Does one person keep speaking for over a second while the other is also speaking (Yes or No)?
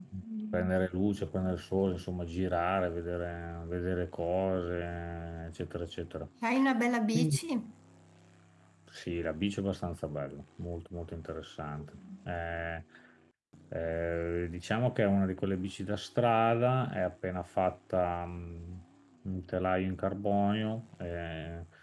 No